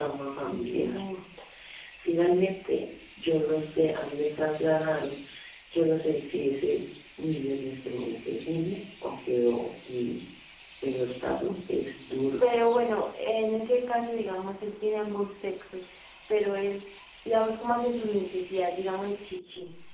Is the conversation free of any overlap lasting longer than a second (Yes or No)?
Yes